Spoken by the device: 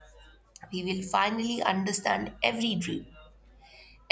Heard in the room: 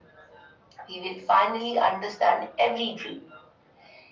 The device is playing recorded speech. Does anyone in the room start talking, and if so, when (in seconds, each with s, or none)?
none